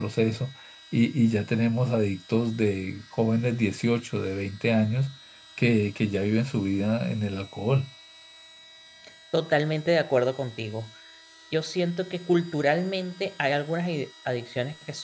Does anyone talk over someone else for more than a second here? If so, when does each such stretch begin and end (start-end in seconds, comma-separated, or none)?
none